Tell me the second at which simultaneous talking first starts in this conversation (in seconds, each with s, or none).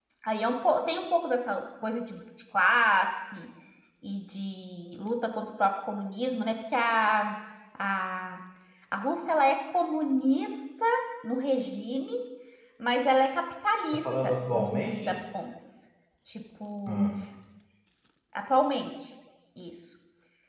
13.9 s